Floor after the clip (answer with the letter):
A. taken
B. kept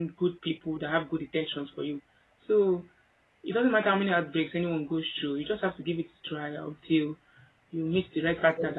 A